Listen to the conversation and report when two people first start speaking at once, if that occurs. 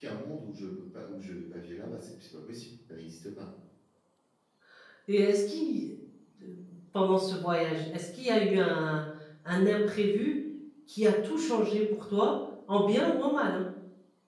none

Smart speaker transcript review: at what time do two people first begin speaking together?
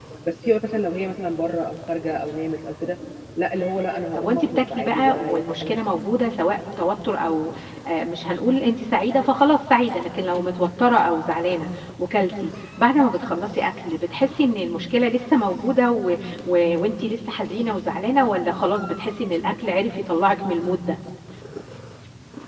4.1 s

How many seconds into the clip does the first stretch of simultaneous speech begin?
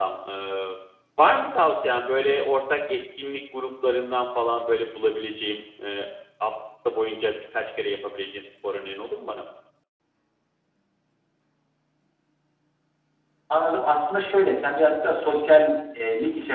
none

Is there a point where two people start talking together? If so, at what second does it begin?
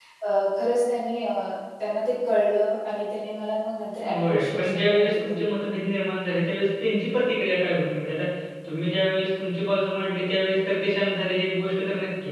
4.0 s

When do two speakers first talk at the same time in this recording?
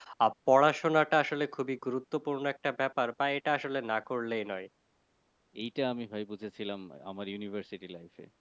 none

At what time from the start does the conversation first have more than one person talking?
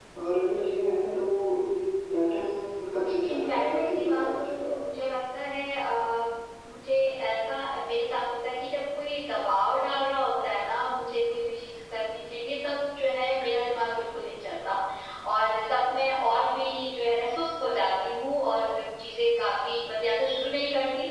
3.3 s

